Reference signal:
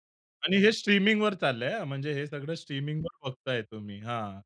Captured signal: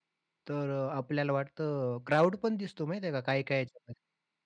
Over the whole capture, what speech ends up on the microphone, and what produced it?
user only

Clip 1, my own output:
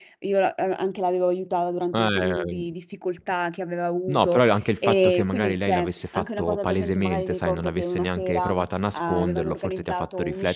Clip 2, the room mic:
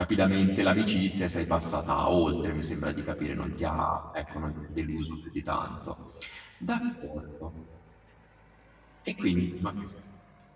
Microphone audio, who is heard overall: user only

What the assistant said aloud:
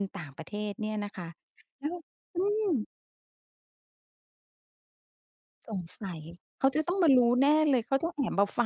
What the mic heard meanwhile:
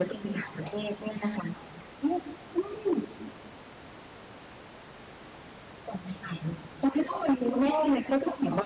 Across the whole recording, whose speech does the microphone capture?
echo only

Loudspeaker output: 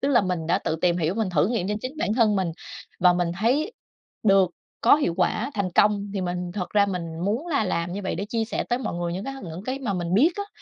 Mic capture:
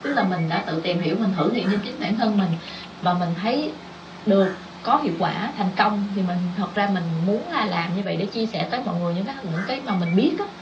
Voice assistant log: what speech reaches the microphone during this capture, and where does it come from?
echo only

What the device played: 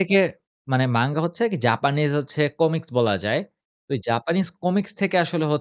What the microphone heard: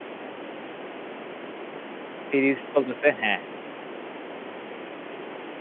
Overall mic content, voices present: user only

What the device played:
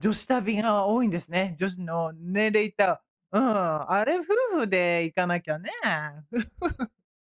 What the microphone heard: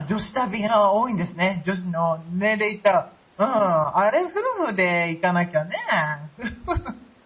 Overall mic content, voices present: echo only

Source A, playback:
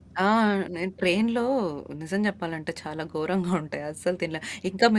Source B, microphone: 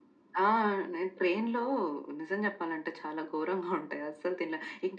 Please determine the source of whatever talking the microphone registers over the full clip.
echo only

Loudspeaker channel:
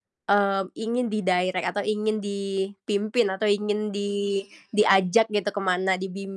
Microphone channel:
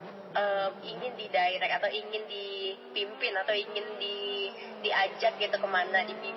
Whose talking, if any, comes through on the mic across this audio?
echo only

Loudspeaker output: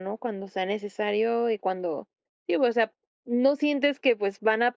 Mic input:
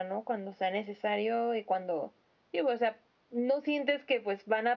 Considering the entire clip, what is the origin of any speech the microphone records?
echo only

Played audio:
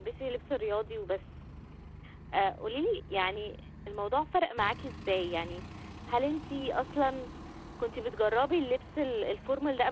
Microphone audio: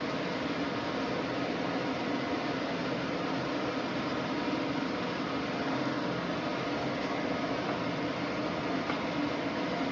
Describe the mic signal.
neither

